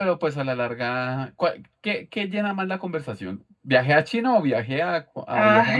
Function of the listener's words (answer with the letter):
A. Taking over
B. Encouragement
A